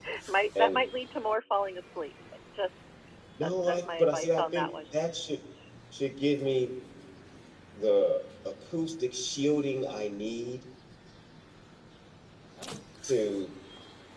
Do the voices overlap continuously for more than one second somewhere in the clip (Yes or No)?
Yes